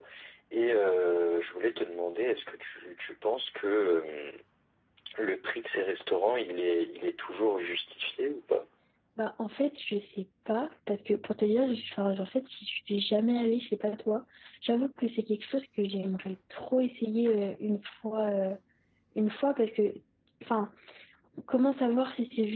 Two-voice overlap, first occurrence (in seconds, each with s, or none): none